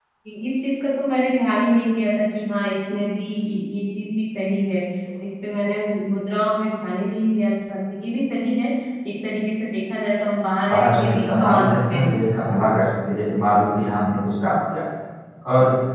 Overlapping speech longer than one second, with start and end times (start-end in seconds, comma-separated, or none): 10.7-12.2